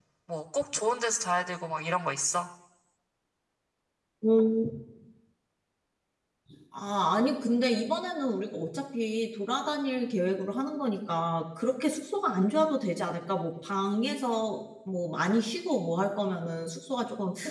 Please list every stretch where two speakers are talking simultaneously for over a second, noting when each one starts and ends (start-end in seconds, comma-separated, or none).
none